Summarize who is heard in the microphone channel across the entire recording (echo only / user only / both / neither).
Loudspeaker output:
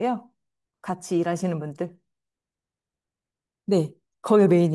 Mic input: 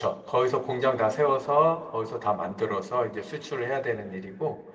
user only